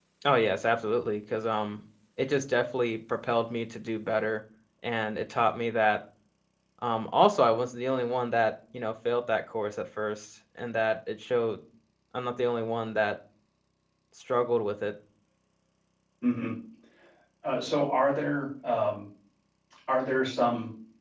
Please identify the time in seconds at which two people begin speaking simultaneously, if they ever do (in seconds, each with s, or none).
none